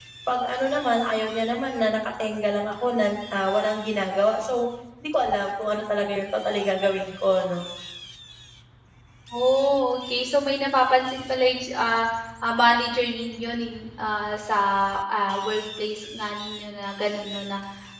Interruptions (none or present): none